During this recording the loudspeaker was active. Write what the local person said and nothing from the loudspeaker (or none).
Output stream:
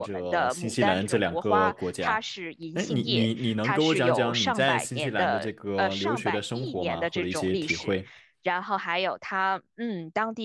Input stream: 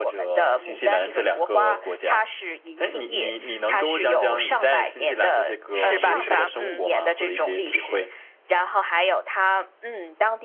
是吧？是吧？嗯